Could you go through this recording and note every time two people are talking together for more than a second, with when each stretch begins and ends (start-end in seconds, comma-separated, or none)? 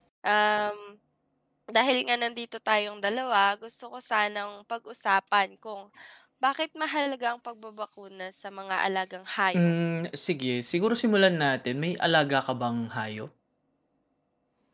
none